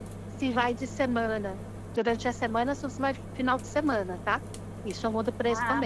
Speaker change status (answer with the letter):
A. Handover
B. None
A